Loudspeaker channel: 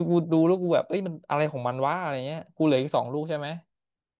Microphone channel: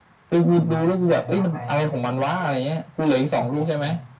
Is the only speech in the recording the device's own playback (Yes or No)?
No